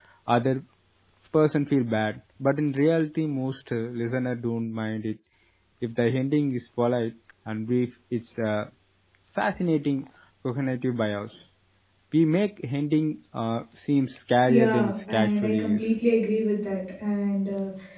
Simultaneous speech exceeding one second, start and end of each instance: 14.4-15.8

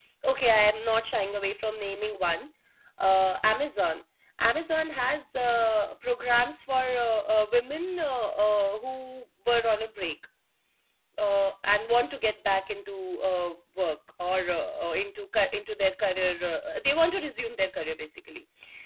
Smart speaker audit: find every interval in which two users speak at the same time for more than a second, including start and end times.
none

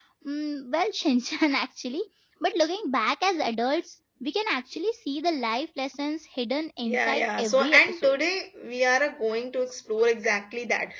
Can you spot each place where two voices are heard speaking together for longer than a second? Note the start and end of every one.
6.8-8.2

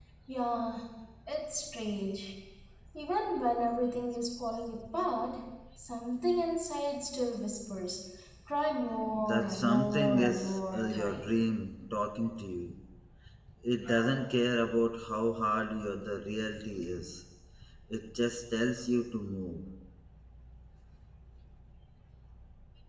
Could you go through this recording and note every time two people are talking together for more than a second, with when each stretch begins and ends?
9.3-11.3

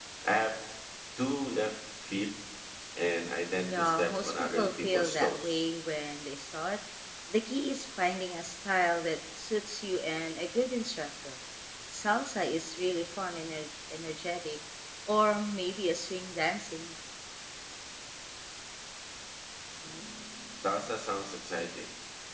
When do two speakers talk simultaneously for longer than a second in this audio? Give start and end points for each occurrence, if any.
3.7-5.7

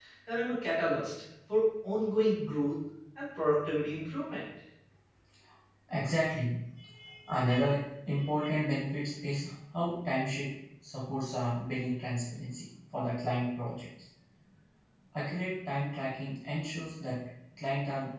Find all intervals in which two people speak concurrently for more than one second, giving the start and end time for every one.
none

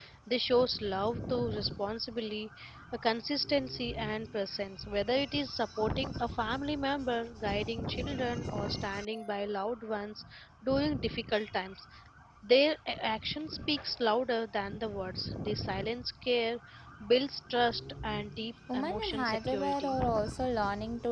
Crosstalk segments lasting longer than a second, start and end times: 18.7-19.9

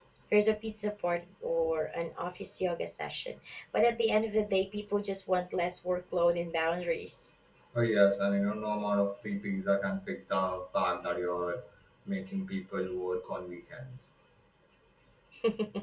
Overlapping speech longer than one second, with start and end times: none

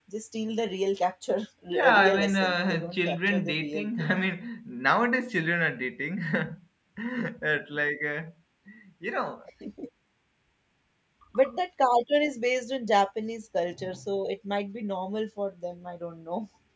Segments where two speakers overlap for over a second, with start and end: 1.7-4.1

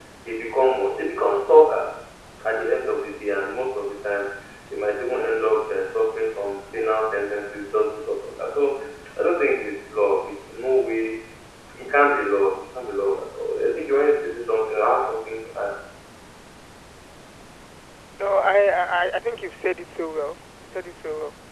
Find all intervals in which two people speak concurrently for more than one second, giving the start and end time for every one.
none

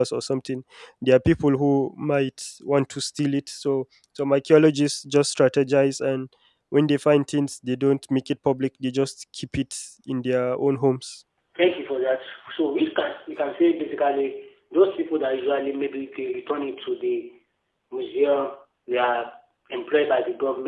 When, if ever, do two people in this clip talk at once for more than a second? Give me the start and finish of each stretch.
none

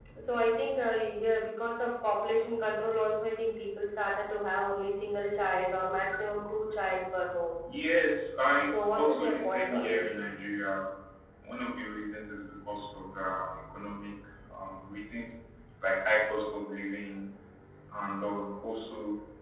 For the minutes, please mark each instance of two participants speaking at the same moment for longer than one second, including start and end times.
8.6-10.1

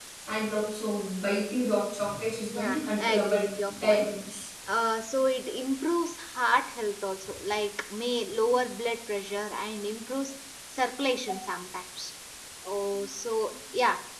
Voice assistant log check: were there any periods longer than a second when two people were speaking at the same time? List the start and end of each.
2.5-4.1

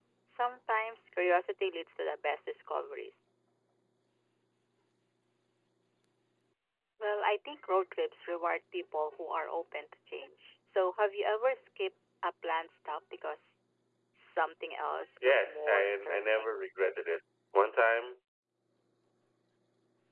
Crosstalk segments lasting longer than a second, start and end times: 15.2-16.6

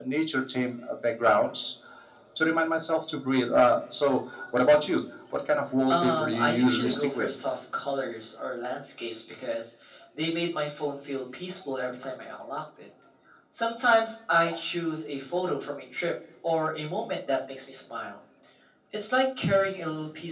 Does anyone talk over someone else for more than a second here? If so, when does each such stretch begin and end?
5.9-7.3

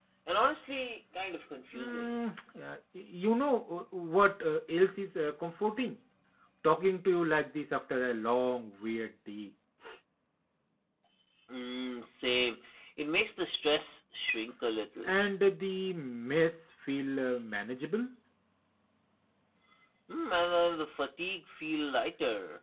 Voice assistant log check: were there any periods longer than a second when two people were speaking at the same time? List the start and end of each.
none

